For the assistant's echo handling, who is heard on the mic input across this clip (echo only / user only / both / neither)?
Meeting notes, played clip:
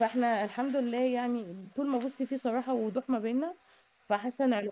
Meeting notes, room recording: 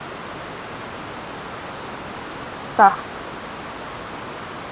user only